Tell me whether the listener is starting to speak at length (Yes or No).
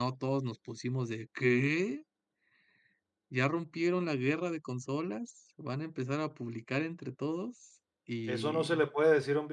Yes